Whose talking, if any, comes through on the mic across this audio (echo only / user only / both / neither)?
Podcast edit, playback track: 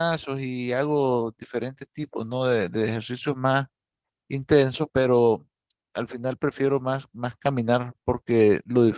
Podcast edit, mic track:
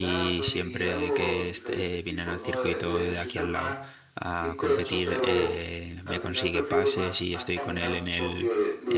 both